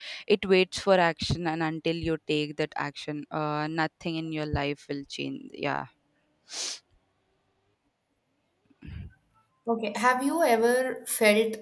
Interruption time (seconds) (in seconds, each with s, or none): none